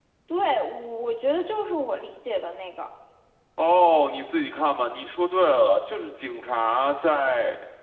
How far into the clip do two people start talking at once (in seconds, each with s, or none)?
none